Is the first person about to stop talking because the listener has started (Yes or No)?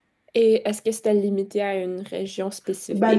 Yes